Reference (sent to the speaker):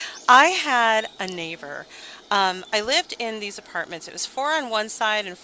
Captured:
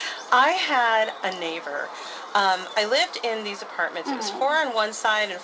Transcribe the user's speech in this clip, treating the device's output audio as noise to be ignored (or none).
Oh,